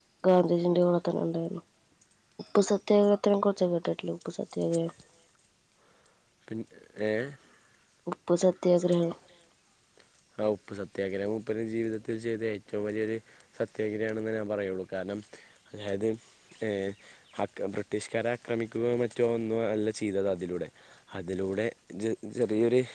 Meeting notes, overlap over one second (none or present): none